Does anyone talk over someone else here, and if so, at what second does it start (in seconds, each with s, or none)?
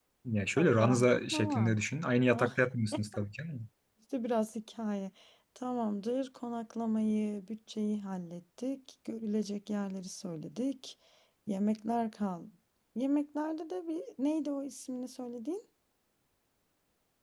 0.6 s